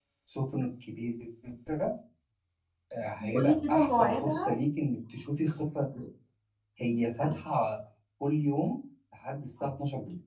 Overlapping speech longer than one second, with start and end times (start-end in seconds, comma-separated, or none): 3.2-4.6